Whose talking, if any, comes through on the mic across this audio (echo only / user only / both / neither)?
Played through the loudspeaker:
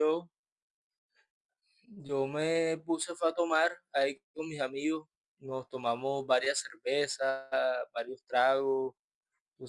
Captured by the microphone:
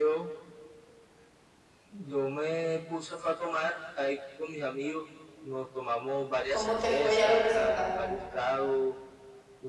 both